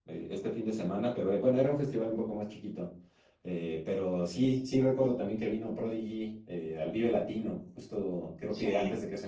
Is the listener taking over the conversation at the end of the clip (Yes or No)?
No